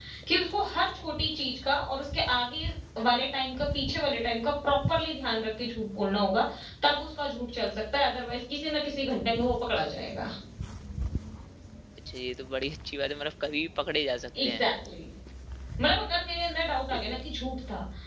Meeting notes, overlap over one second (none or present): none